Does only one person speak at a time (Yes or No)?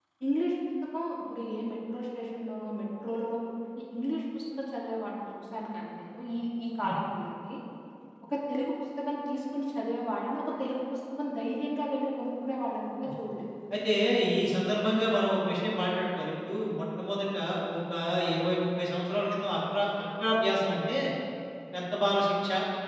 Yes